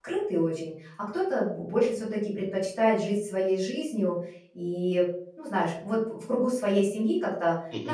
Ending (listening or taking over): listening